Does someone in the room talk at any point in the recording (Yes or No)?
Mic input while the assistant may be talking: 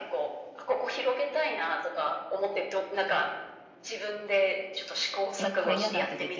Yes